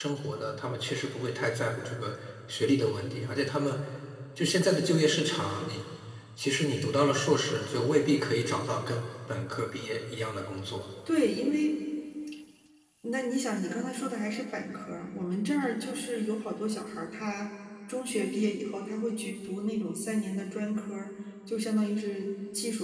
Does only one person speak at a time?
Yes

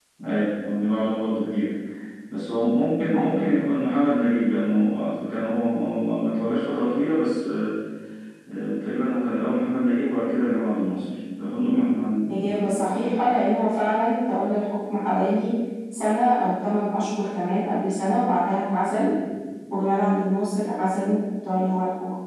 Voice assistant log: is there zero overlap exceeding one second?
Yes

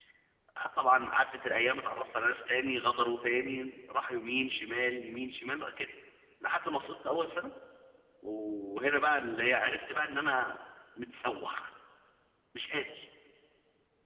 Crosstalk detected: No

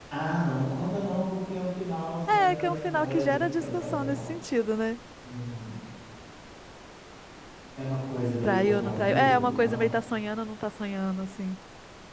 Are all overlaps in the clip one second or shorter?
No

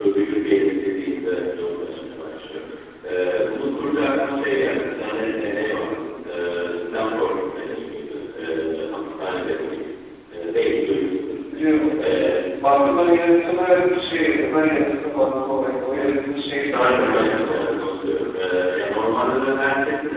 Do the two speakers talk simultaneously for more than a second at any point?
Yes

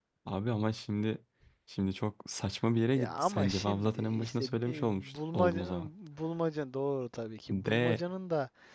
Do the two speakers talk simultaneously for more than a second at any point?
Yes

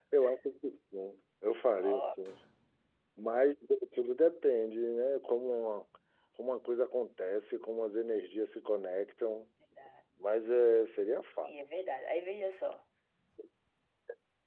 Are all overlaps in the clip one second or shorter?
Yes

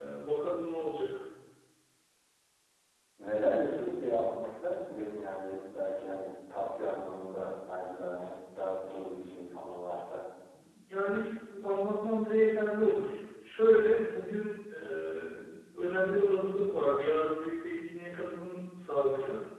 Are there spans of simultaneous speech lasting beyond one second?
No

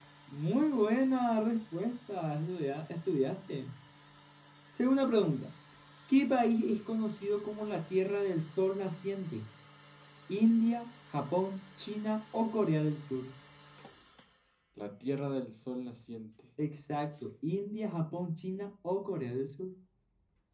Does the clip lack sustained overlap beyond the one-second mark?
Yes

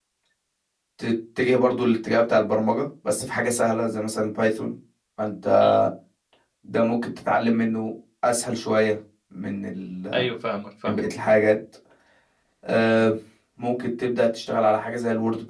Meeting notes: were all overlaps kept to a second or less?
Yes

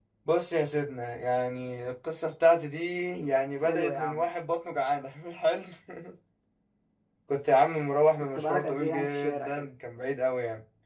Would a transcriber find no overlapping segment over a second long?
No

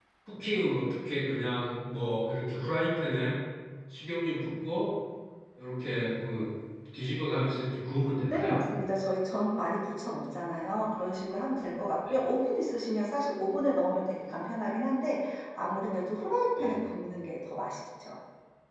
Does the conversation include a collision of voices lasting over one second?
No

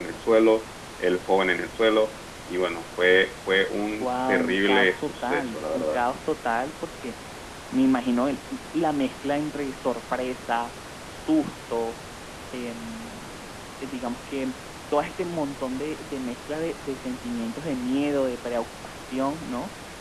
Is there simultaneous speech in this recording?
Yes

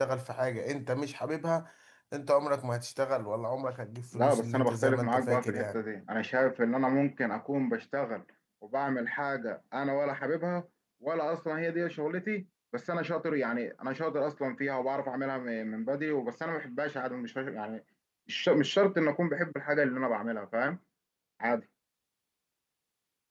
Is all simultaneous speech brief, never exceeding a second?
No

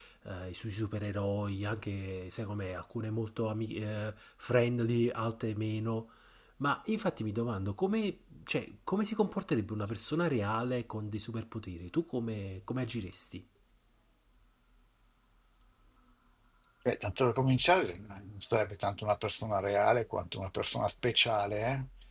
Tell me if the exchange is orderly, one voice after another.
Yes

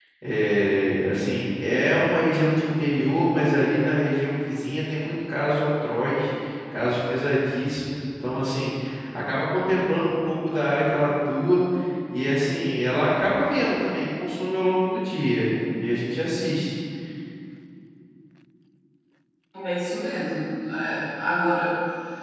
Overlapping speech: No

